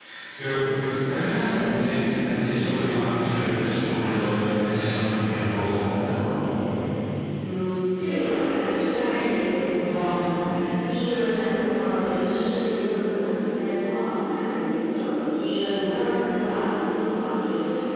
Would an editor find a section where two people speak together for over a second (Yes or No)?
No